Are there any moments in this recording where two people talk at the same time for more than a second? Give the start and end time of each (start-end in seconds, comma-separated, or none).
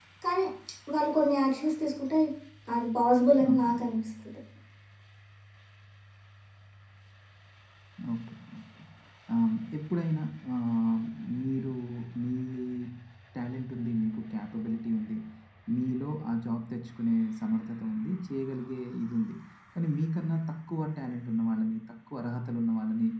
none